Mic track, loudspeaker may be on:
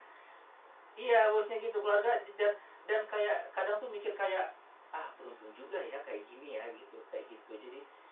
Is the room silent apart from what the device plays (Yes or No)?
Yes